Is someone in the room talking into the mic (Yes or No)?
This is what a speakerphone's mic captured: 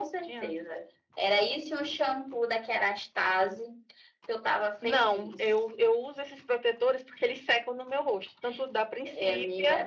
No